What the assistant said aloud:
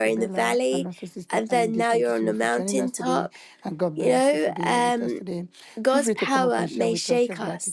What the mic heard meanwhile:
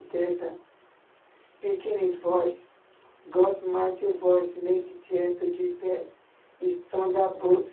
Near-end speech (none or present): present